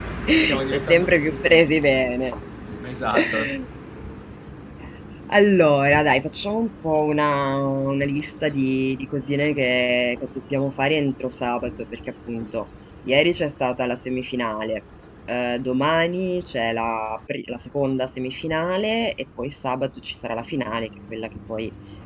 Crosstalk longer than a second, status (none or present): present